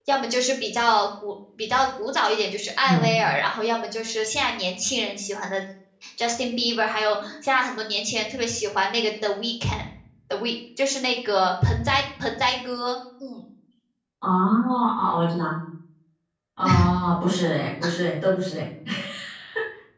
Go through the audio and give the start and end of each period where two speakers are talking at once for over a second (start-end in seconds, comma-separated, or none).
none